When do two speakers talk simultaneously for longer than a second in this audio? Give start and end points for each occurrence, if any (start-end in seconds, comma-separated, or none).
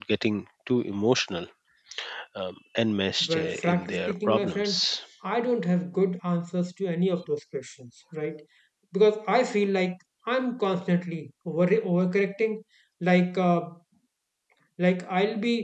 3.2-4.8